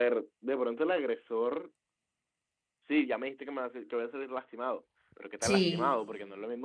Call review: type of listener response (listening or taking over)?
listening